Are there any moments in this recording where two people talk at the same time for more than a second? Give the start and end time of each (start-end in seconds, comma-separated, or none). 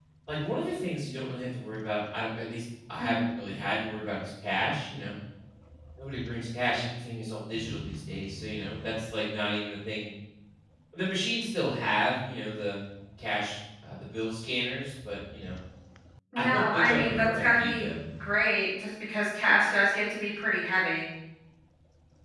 16.4-17.9